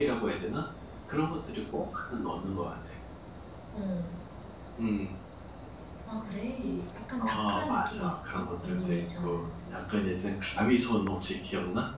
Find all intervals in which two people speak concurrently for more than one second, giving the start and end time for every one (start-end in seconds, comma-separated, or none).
7.2-9.5